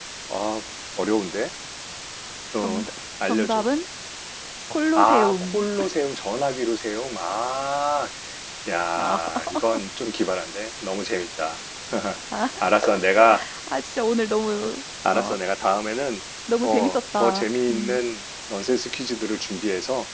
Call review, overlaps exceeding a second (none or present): present